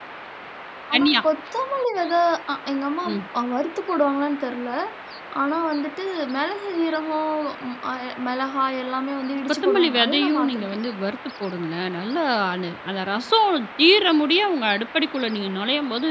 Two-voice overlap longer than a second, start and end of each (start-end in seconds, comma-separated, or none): 9.3-10.8